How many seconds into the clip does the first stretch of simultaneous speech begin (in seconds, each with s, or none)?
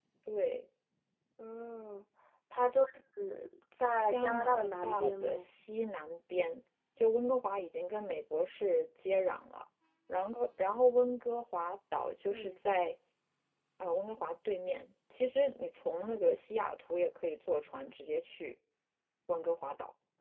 4.1 s